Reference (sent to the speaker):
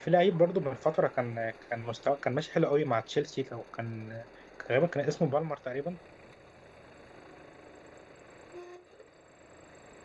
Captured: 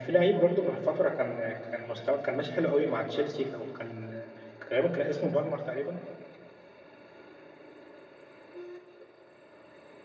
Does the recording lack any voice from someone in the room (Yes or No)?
Yes